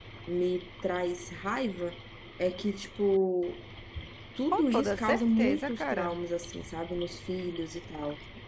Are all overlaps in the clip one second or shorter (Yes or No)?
No